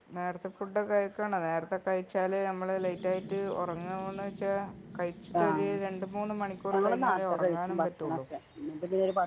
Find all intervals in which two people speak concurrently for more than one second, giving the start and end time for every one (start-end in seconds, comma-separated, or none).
6.7-8.2